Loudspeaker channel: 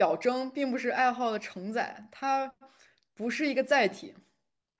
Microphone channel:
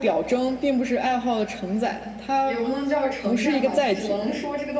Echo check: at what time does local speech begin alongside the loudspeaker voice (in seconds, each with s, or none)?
2.4 s